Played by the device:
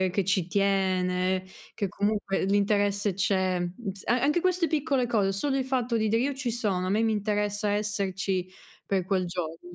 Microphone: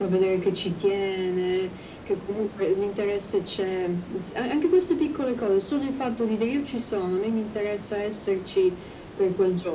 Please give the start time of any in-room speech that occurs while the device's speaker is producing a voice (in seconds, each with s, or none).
none